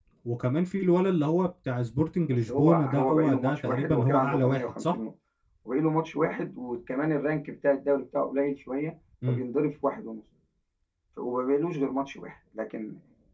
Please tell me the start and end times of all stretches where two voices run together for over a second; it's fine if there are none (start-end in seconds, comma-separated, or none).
2.5-4.9